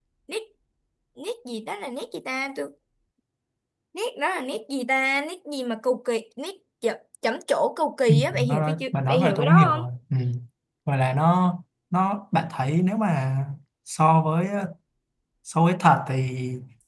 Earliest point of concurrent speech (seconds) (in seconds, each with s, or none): 8.1 s